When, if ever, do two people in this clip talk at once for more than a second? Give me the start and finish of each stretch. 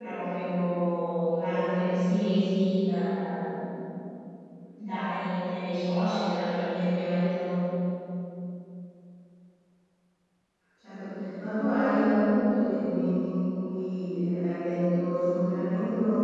none

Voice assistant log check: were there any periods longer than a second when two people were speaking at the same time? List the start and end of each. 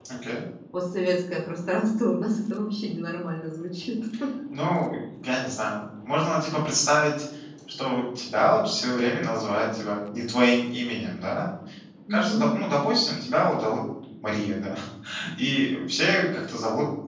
none

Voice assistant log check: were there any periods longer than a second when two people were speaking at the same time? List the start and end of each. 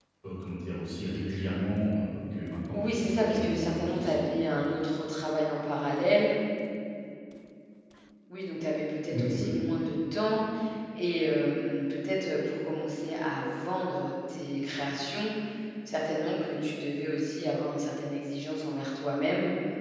2.7-4.1

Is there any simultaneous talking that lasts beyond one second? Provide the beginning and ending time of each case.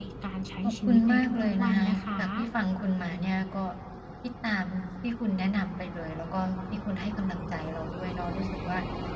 0.6-2.2

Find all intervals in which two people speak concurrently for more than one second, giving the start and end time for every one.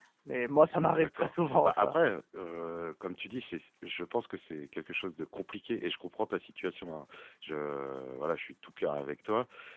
0.7-2.0

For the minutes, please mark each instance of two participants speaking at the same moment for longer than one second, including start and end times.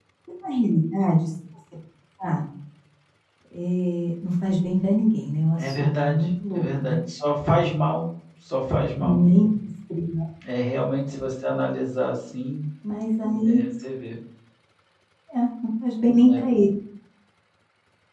5.6-7.0

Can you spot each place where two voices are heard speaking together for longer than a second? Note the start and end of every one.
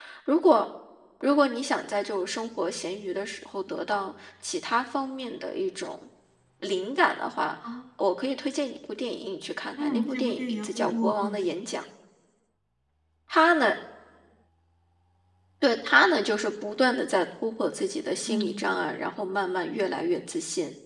9.8-11.5

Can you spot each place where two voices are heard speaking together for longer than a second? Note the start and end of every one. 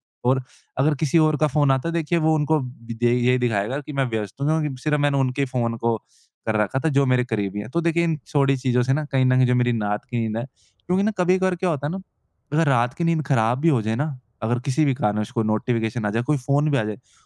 none

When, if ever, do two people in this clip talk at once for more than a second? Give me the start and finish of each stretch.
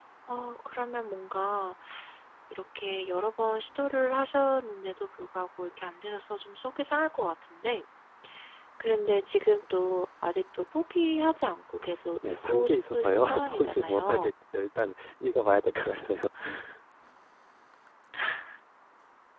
12.2-14.3

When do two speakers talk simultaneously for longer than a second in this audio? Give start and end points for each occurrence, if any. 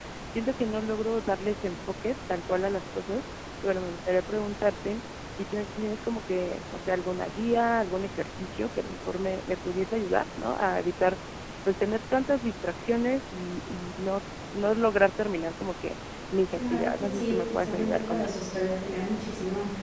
16.5-18.3

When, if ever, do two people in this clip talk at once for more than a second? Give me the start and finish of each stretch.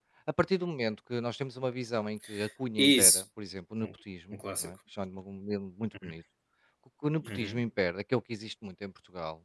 none

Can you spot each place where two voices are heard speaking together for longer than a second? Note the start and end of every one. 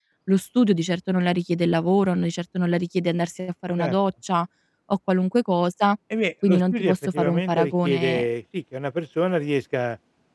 6.5-8.3

